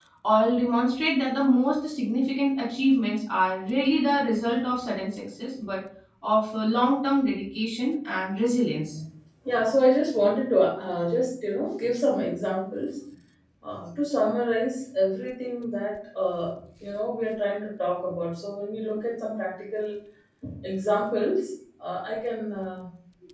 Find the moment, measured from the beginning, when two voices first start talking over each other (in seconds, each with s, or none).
none